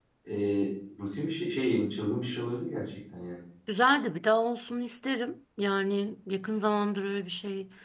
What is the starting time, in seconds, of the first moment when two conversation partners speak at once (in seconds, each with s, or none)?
none